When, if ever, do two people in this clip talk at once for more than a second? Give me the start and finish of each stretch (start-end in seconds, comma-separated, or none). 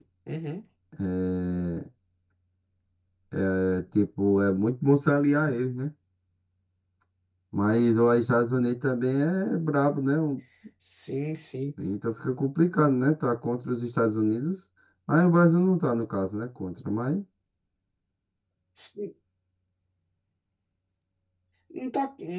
none